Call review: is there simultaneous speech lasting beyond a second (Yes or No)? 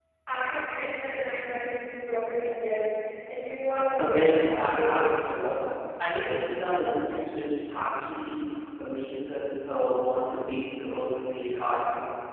Yes